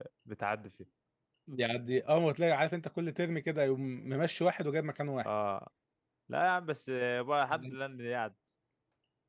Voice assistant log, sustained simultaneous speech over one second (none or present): none